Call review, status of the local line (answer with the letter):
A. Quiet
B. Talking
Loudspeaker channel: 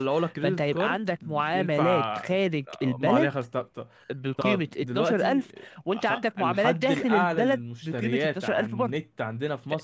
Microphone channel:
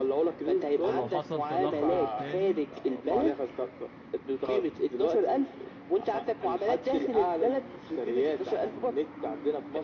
B